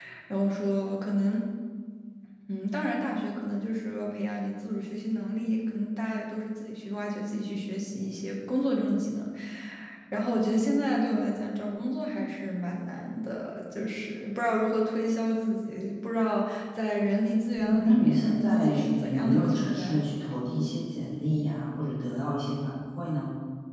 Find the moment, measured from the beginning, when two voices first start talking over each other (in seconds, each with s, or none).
17.6 s